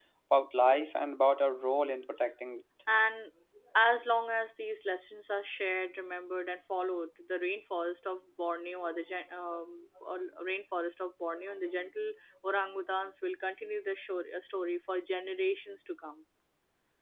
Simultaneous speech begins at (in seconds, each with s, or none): none